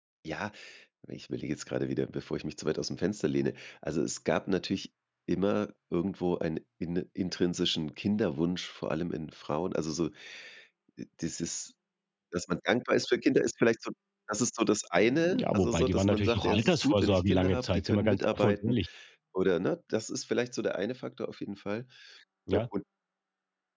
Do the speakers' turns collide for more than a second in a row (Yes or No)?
Yes